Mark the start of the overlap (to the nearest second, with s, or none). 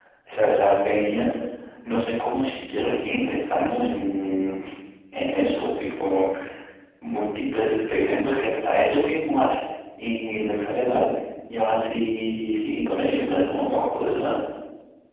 none